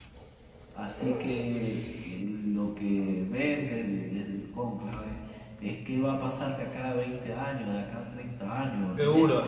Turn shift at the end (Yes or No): Yes